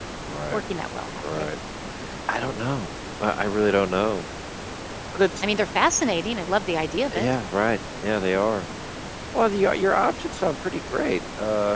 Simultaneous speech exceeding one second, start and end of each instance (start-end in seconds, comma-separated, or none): none